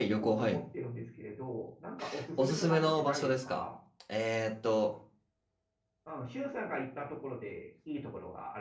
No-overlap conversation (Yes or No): No